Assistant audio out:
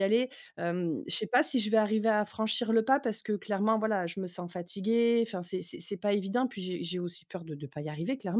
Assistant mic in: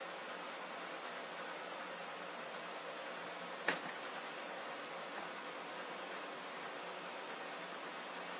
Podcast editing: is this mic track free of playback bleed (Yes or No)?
Yes